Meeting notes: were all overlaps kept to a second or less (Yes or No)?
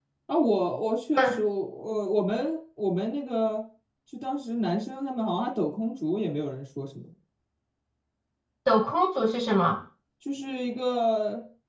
Yes